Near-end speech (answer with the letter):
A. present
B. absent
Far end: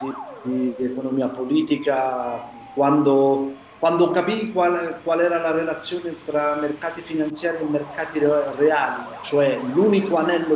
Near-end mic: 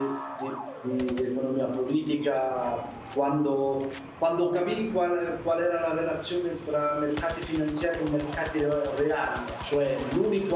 B